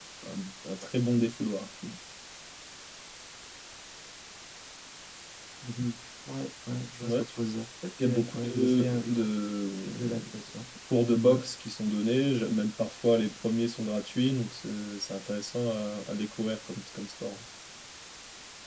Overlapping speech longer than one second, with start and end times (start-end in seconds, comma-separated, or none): 8.0-9.3